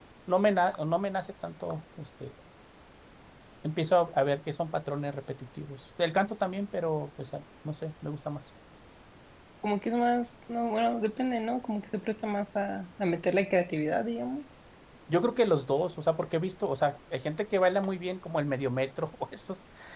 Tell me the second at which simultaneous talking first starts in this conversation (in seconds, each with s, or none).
none